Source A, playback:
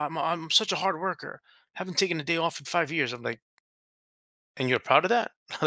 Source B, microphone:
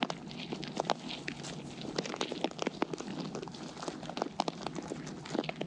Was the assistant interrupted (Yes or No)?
No